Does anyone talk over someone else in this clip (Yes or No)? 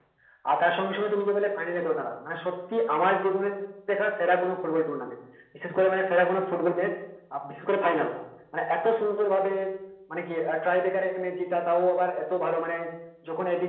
No